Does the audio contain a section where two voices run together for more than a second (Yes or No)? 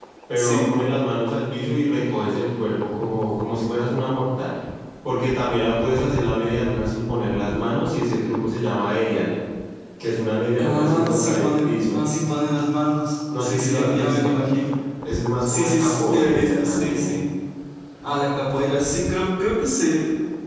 Yes